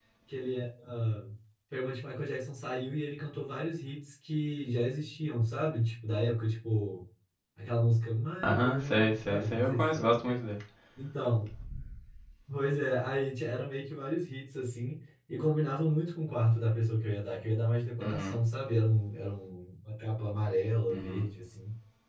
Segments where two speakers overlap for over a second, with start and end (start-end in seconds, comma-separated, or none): 8.4-10.3